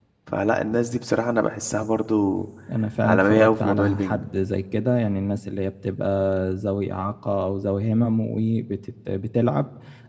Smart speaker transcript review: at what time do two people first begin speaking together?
3 s

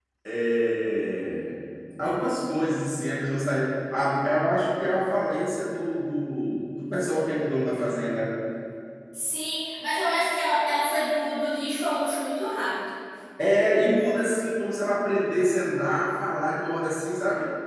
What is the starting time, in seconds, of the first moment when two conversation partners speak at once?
none

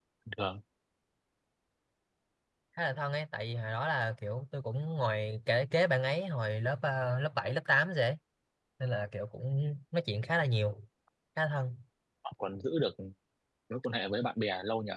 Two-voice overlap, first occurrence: none

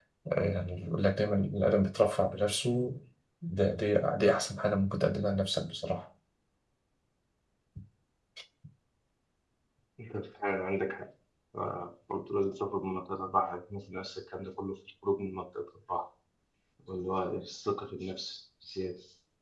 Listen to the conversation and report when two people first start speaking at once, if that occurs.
none

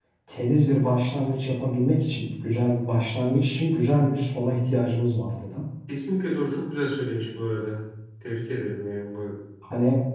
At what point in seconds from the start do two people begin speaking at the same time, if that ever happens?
none

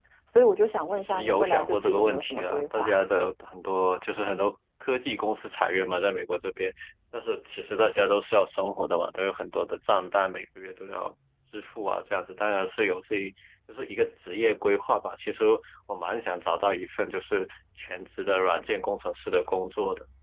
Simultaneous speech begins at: 1 s

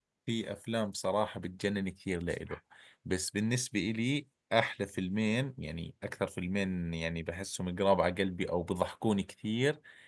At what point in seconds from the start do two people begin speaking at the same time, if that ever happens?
none

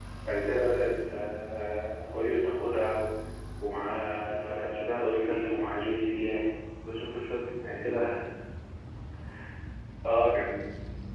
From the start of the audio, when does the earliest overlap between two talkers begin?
4 s

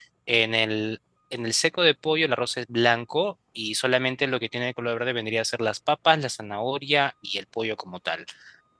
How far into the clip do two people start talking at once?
none

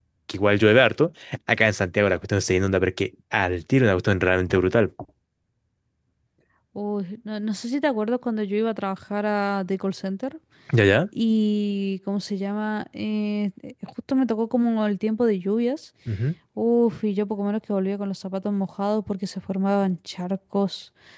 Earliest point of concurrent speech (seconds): none

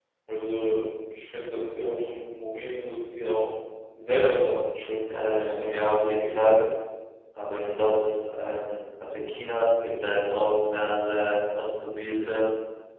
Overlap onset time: 5 s

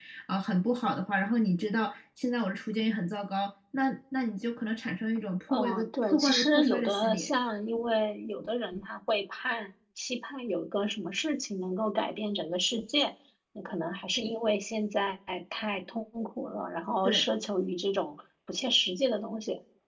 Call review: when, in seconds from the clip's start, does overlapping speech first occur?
5 s

